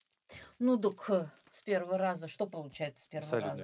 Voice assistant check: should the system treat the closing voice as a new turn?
Yes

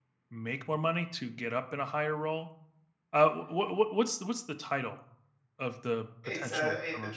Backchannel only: No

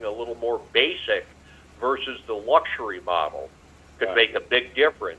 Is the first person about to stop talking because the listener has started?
No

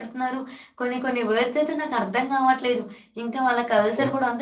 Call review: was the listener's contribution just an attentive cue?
Yes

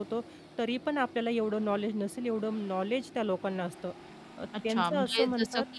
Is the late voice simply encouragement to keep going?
No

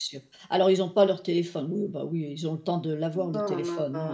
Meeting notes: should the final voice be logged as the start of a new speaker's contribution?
Yes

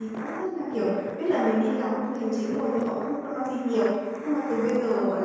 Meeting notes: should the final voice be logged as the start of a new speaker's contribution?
No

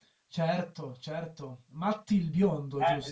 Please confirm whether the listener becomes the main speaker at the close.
Yes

